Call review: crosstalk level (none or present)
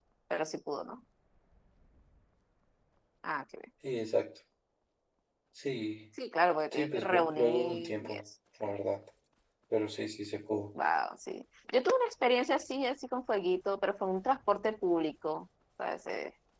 present